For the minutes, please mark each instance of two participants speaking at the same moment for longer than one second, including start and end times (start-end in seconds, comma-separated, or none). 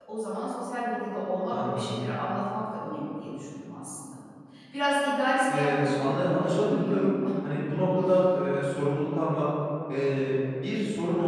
5.5-7.0